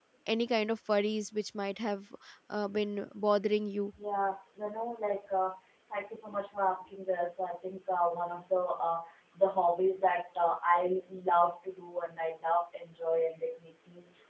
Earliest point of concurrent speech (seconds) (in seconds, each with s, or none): none